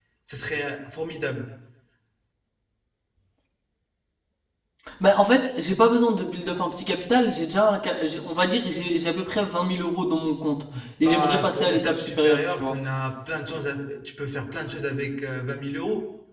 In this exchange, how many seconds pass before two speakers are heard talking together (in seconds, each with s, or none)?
11.1 s